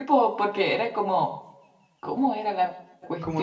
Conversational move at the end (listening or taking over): taking over